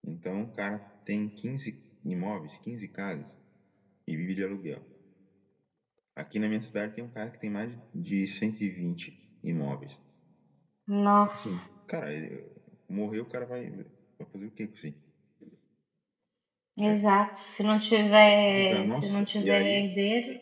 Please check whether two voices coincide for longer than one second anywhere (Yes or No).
Yes